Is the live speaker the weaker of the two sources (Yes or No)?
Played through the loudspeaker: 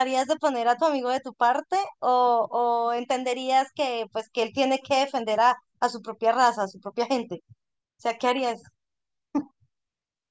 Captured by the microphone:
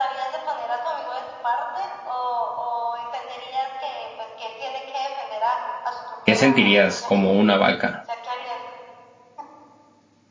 No